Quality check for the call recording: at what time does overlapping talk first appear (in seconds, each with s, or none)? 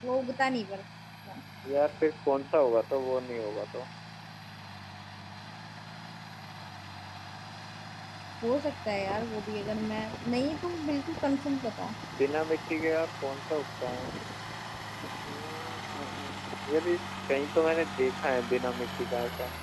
none